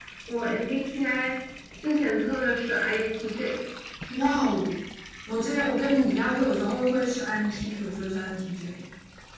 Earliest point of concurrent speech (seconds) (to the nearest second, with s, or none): none